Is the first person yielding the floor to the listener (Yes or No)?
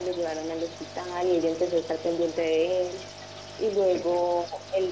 No